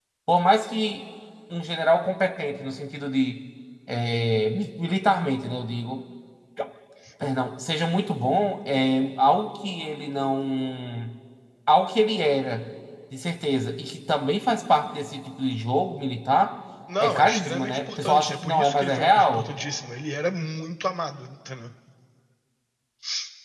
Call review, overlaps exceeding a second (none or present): present